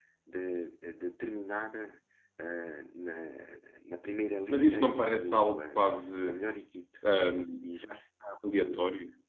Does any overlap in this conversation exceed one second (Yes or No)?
Yes